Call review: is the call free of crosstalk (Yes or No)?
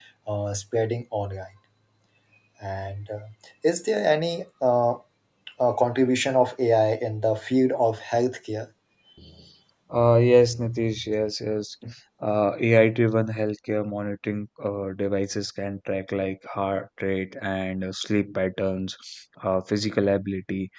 Yes